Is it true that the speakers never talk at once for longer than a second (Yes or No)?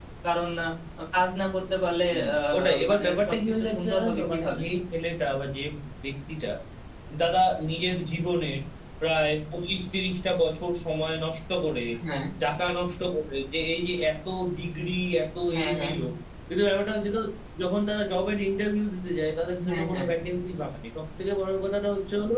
No